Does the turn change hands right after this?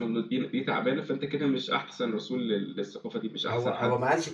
Yes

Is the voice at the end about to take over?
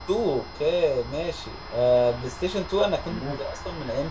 No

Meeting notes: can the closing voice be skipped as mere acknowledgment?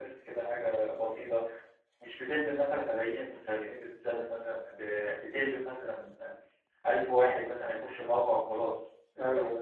Yes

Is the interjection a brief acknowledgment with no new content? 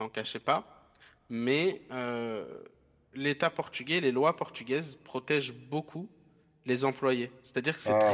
Yes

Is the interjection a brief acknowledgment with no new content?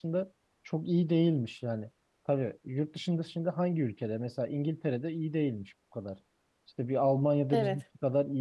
Yes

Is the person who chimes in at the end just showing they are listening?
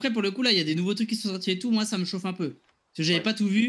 Yes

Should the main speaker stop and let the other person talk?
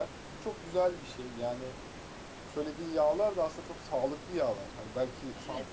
Yes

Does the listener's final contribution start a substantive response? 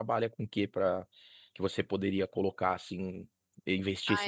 Yes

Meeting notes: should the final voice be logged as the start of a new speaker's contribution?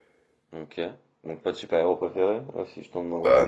Yes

